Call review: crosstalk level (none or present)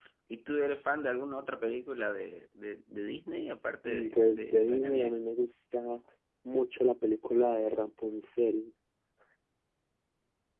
present